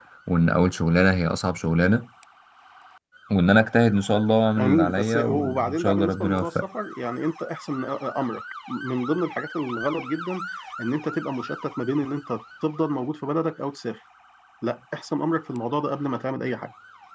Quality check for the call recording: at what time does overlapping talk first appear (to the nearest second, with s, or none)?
5 s